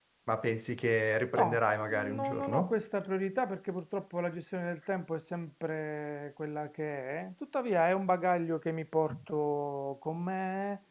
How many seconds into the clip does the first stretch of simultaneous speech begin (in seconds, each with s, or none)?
1.3 s